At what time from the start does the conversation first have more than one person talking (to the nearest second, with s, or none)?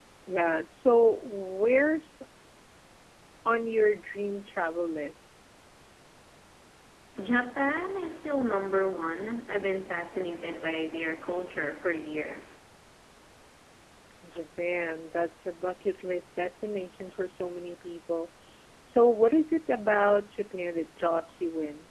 none